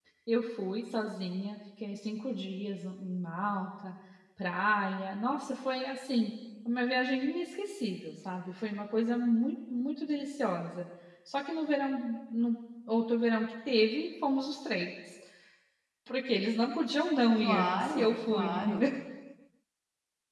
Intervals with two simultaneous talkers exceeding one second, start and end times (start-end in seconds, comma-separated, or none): 17.4-18.8